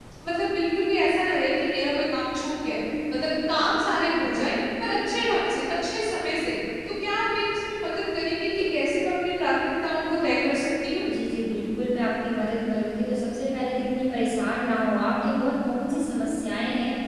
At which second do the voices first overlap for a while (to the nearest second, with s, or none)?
none